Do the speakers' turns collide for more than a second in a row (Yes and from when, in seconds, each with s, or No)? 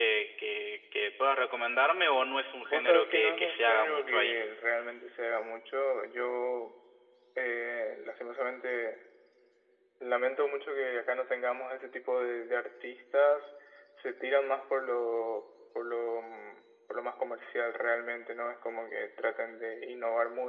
Yes, from 2.6 s